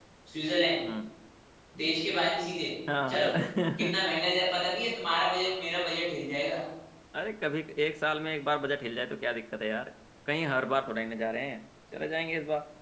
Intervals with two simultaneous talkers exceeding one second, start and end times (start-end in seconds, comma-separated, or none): none